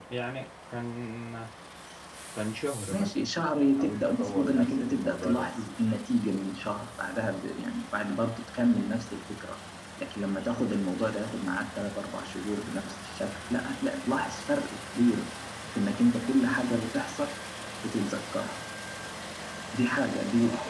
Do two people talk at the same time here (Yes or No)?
Yes